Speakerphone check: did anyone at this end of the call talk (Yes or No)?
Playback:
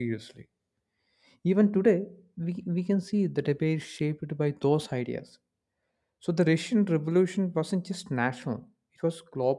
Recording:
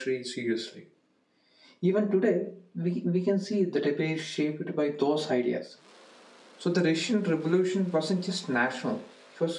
No